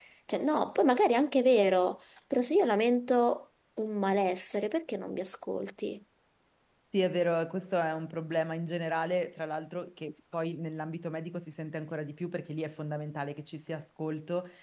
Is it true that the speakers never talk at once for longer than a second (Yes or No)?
Yes